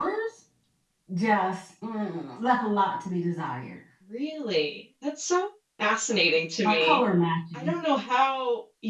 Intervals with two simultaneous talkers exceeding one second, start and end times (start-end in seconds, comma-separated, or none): none